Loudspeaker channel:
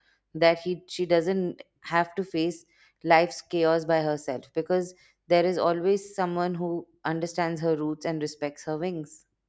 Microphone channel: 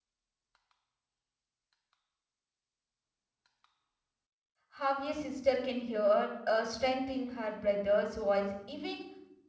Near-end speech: present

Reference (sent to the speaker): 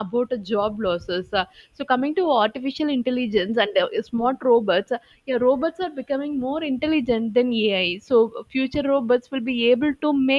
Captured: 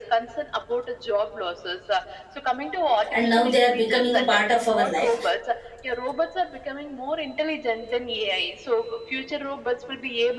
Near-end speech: present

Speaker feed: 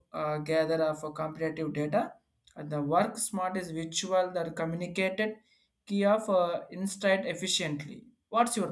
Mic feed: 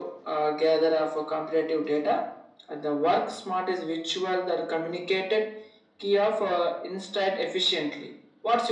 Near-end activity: none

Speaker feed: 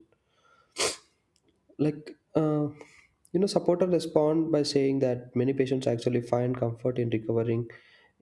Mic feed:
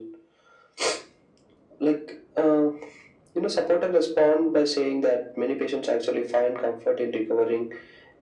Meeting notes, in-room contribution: none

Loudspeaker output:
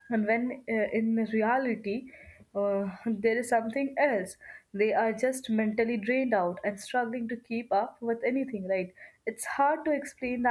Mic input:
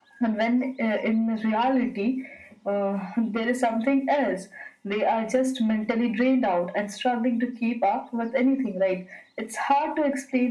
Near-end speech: none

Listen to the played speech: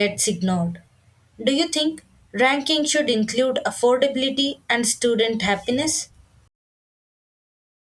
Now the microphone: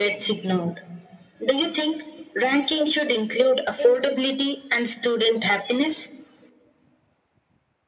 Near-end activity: present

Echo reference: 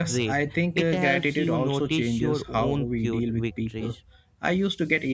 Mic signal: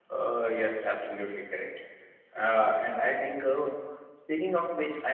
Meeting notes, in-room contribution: present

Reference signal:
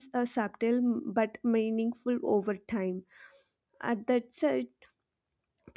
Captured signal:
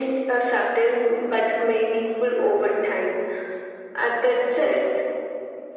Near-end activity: none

